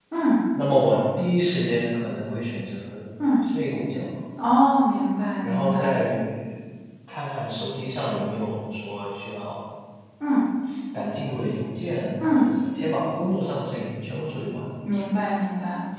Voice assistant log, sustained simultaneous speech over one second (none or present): none